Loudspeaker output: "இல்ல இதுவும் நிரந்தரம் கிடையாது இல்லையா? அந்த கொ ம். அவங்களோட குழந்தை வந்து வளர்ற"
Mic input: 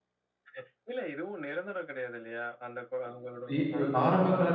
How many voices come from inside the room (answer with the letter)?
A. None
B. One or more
B